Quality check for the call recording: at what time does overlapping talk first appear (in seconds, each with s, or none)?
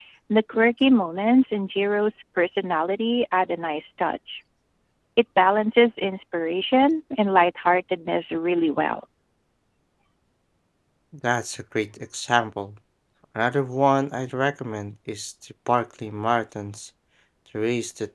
none